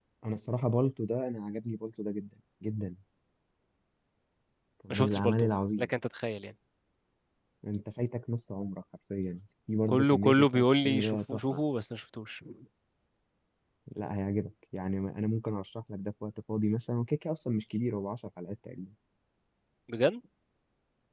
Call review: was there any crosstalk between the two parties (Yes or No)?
Yes